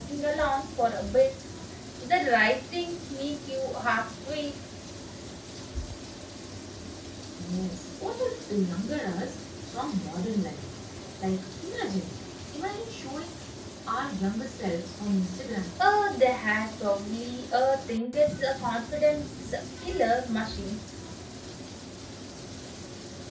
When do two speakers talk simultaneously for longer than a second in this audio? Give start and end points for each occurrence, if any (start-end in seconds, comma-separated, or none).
none